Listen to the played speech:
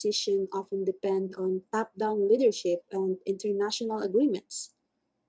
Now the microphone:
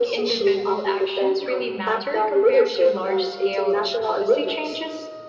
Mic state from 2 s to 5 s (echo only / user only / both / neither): both